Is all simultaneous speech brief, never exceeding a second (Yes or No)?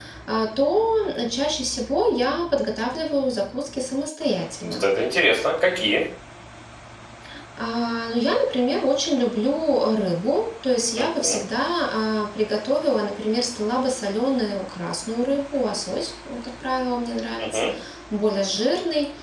Yes